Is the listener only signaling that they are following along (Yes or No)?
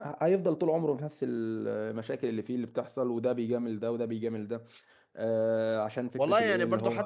No